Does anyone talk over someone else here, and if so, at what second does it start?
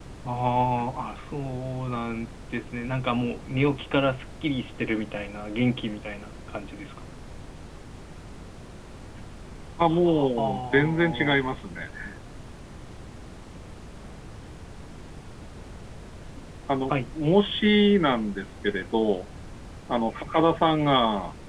9.9 s

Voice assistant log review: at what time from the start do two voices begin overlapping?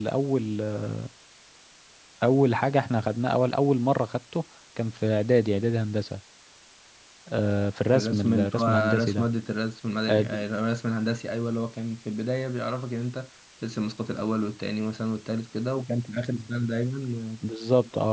8.0 s

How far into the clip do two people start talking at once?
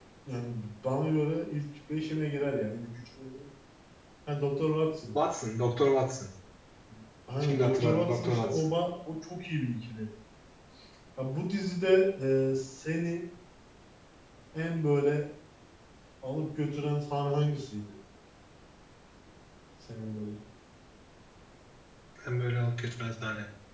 7.4 s

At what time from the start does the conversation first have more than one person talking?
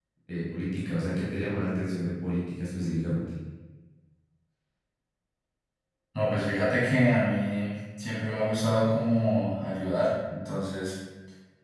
none

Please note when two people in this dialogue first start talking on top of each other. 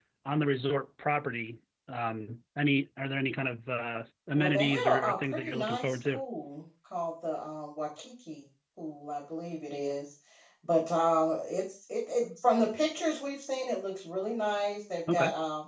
4.4 s

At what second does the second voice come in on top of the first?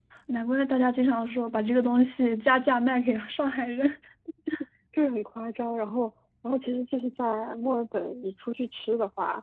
none

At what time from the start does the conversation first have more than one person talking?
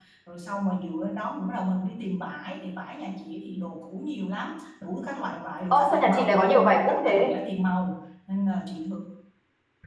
5.7 s

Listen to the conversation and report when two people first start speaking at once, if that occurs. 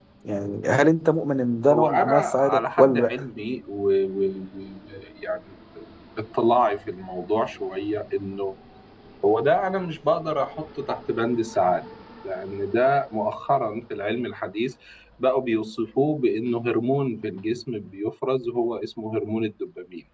1.7 s

